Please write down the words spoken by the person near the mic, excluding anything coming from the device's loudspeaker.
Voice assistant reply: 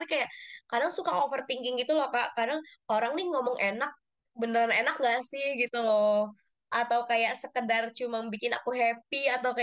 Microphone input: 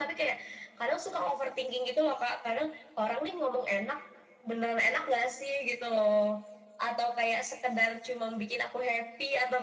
none

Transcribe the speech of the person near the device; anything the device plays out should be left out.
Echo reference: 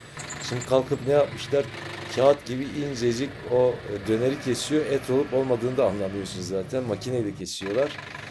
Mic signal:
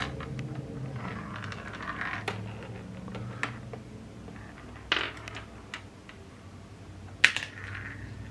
none

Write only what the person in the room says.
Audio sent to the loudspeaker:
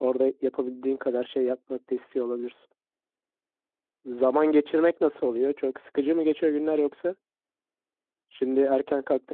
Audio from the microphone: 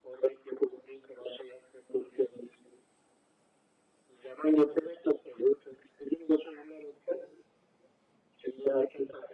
none

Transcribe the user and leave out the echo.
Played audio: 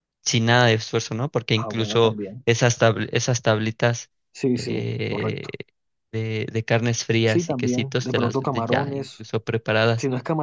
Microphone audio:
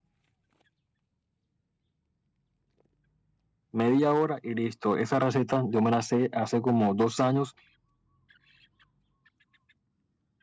media hora y listo. Esa receta yo me la sé hace como dos años

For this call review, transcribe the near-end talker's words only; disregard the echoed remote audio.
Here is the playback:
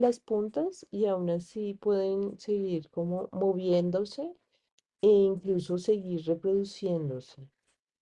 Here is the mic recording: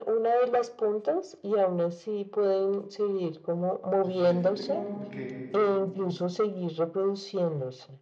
Pues fíjate que no, porque

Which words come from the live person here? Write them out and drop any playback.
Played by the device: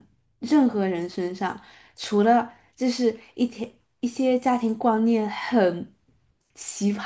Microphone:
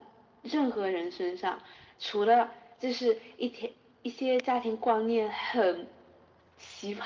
none

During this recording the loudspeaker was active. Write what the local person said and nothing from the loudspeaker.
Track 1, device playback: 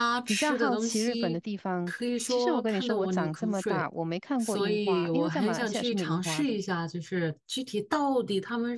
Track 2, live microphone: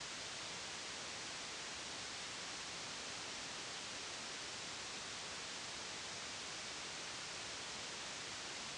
none

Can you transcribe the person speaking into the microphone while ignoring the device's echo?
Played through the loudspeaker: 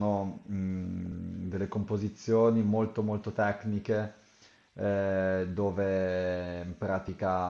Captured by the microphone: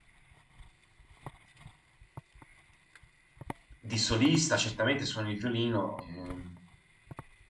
di solista, certamente suoni il violino, ehm,

